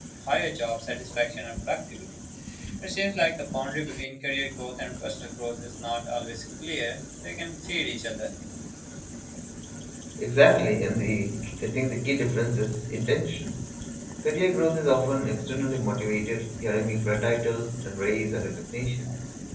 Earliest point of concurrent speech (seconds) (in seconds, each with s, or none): none